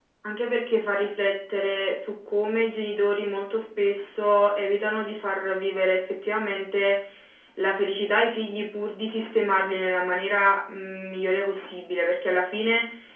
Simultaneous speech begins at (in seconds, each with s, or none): none